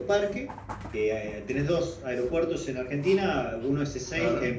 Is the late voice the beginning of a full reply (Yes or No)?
No